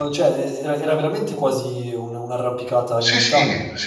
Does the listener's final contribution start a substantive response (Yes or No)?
Yes